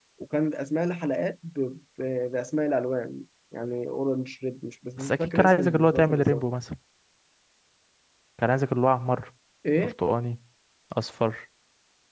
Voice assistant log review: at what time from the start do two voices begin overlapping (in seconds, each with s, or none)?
5.0 s